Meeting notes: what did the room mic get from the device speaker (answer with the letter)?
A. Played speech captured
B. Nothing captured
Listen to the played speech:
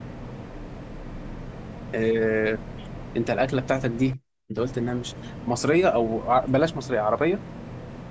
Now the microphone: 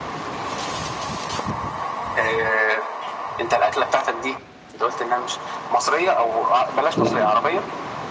A